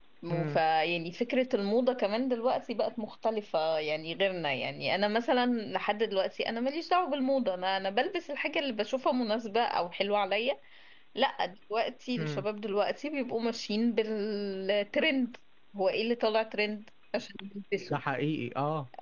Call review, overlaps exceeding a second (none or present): none